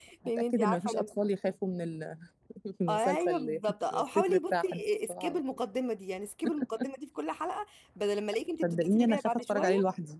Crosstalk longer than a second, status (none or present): present